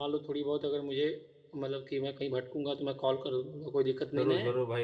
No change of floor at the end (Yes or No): No